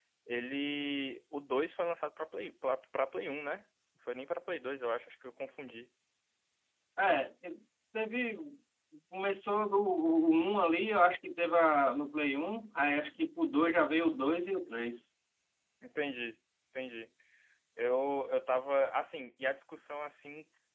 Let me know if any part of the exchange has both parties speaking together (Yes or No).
No